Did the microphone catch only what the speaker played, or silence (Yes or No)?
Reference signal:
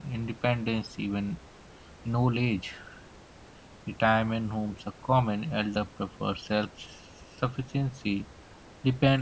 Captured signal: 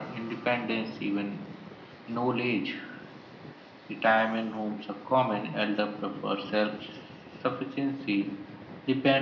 Yes